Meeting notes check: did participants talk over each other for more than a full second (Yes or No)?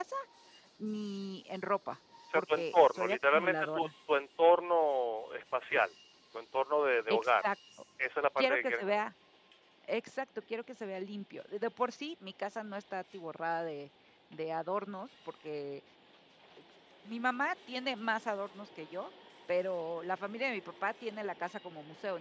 Yes